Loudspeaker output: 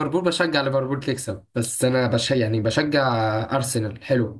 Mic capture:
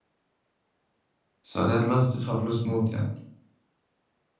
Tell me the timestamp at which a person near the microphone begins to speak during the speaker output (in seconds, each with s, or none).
1.4 s